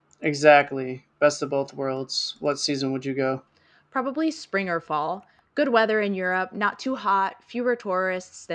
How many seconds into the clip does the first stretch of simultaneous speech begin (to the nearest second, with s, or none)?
none